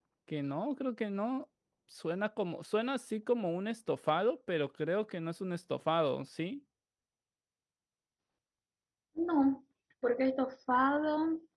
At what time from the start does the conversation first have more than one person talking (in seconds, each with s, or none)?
none